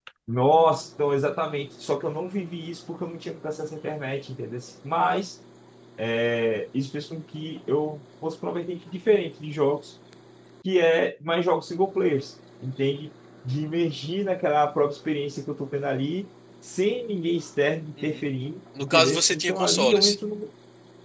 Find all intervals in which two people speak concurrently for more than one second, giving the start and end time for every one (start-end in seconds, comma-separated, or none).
18.8-20.1